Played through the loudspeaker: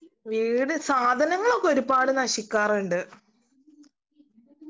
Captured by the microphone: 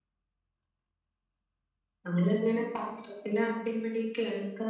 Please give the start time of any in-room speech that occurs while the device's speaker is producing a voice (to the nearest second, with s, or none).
2 s